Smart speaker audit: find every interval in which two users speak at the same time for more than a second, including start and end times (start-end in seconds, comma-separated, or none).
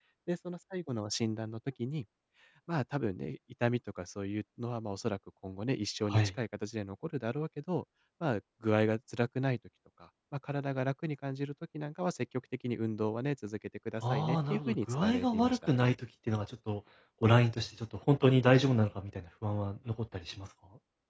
14.1-15.6